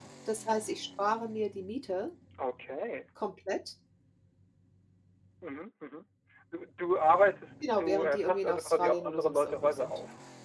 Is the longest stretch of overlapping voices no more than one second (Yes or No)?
No